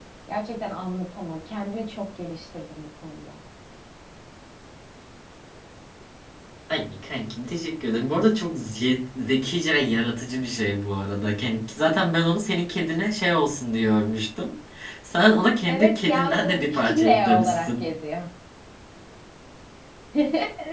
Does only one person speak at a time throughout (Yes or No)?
No